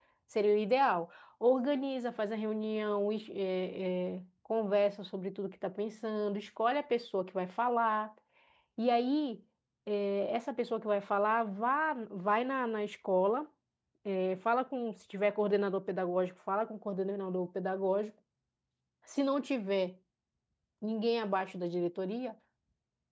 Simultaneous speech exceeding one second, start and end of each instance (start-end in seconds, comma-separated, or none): none